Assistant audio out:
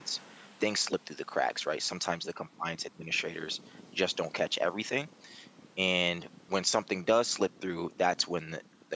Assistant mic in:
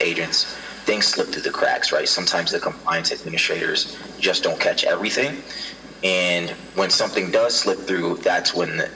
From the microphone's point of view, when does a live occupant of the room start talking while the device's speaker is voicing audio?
none

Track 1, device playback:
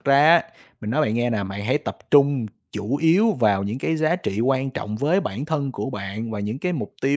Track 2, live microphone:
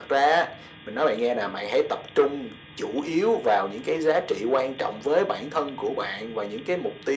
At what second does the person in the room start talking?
none

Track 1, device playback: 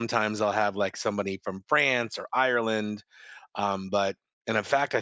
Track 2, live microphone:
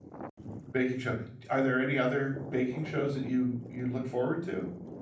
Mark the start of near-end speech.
0.7 s

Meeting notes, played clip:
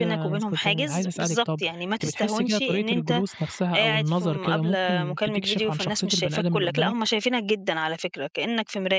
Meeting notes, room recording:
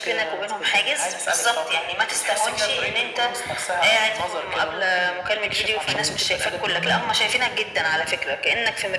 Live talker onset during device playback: 5.8 s

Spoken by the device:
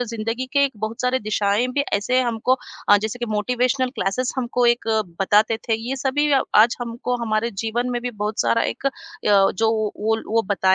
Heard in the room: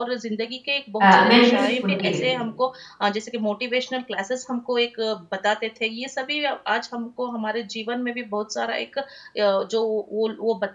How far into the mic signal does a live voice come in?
1.0 s

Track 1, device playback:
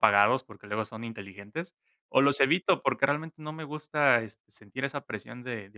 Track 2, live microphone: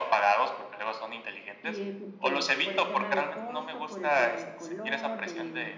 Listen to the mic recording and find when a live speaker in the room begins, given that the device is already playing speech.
1.6 s

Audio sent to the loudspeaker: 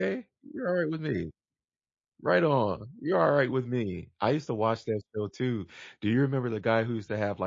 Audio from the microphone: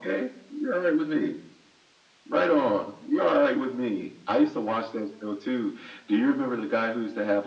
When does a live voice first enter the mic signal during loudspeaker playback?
none

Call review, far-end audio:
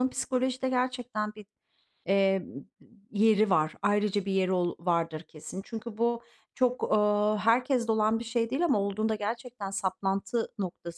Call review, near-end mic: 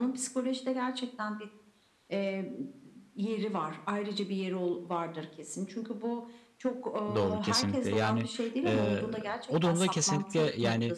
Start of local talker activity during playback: 7.1 s

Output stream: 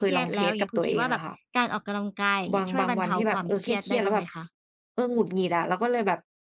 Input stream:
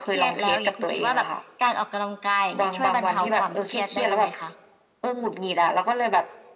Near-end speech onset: none

